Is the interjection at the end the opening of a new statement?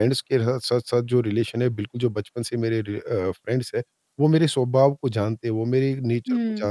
No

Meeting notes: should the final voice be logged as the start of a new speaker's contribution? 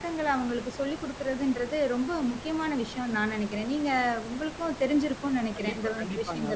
Yes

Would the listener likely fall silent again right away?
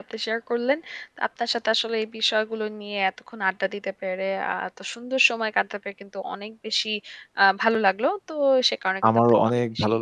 No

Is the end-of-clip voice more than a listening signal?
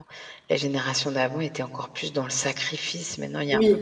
Yes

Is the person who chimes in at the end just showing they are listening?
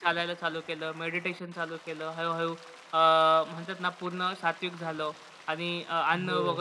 Yes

